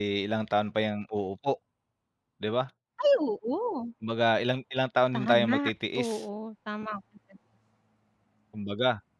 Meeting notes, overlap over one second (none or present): none